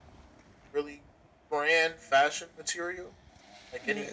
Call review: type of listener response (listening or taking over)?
taking over